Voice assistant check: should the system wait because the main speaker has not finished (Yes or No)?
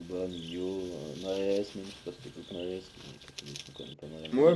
No